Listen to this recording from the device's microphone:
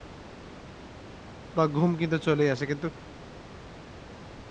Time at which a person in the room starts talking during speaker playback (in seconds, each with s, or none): 1.6 s